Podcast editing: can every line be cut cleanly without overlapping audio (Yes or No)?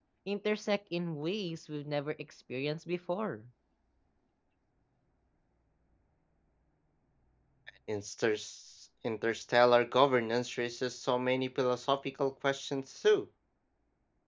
Yes